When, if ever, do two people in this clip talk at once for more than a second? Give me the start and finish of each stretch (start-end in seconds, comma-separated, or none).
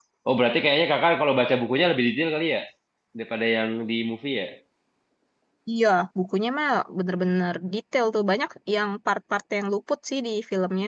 none